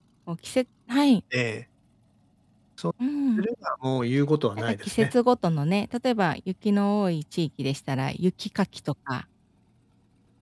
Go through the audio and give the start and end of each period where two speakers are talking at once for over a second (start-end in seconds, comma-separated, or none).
none